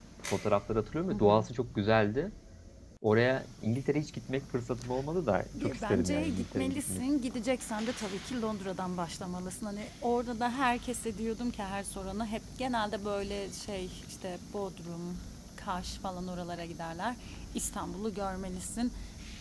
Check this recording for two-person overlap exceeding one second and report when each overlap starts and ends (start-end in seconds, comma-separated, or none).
5.6-7.0